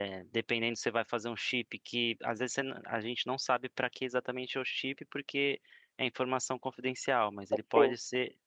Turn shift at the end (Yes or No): No